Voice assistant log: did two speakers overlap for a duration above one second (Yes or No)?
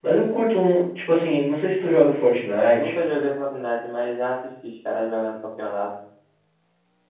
No